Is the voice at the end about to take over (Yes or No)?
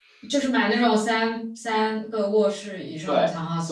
Yes